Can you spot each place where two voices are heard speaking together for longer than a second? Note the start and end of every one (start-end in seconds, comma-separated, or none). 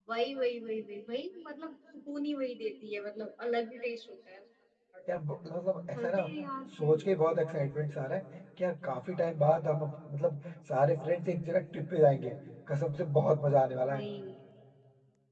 none